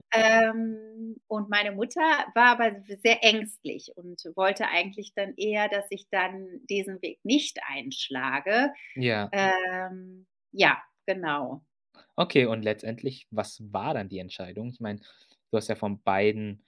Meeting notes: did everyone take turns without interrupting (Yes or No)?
Yes